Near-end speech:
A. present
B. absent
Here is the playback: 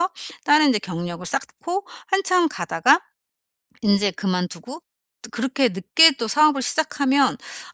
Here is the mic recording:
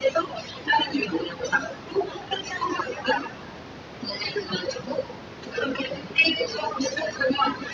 B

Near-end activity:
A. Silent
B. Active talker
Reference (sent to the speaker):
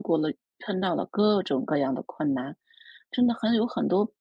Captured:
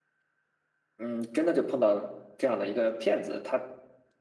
B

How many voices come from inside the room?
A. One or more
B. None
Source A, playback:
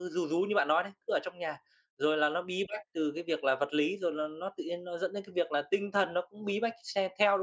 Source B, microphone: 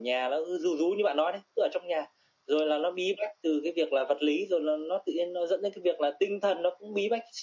B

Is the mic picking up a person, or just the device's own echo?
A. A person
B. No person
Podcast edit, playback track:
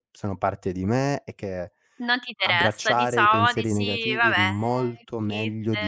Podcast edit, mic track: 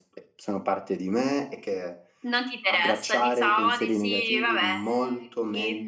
B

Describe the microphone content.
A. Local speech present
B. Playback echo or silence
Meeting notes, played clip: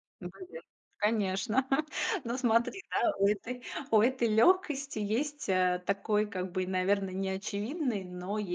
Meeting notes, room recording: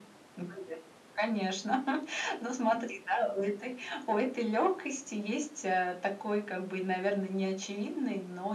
B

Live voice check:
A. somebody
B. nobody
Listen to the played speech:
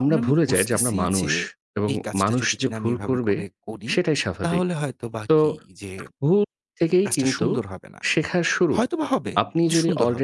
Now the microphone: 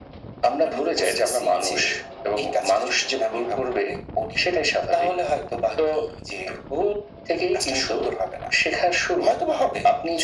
B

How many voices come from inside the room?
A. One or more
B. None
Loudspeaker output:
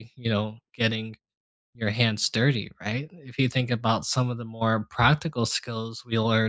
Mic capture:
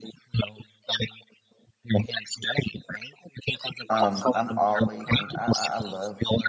A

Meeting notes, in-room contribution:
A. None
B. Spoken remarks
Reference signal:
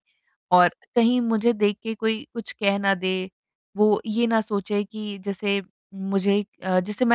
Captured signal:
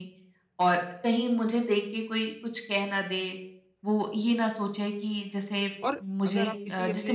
B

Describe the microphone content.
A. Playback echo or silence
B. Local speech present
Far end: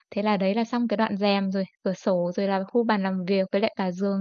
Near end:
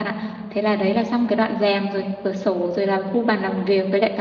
A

